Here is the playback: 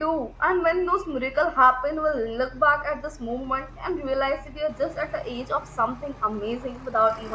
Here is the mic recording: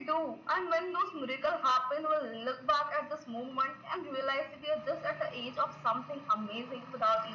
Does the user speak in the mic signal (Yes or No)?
No